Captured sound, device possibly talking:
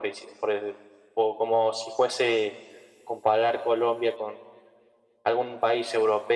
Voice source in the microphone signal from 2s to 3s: echo only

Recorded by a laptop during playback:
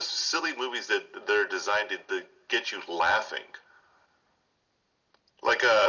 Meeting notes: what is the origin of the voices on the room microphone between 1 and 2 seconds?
echo only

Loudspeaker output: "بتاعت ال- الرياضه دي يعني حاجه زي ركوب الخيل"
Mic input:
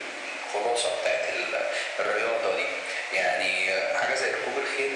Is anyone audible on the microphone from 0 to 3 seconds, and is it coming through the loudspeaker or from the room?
echo only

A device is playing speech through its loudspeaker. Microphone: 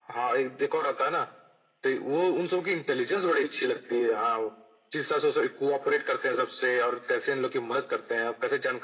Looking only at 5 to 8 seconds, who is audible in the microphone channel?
echo only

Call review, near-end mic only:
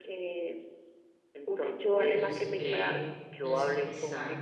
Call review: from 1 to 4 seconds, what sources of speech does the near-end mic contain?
both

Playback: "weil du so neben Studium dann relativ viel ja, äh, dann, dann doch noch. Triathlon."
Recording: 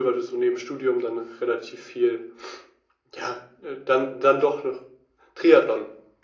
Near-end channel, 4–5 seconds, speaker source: echo only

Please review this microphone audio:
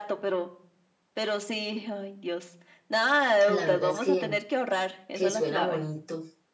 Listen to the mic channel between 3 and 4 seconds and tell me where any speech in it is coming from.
both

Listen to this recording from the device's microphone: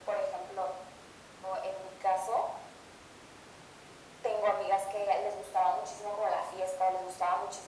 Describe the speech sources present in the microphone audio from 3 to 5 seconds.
echo only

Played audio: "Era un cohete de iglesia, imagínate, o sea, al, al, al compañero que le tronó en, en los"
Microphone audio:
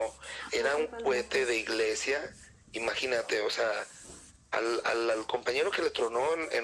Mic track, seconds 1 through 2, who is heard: both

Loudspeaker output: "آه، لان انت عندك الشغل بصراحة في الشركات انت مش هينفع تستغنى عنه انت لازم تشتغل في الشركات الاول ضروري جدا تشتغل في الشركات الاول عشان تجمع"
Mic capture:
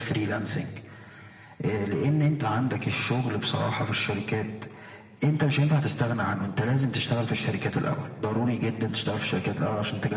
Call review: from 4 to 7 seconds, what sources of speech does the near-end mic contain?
echo only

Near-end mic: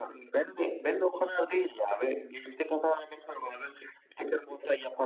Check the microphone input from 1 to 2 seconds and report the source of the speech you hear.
echo only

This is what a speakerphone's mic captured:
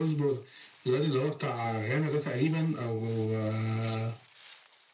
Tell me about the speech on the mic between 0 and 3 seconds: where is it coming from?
echo only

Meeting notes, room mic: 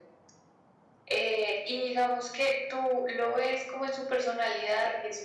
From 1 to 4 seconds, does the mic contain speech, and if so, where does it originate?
echo only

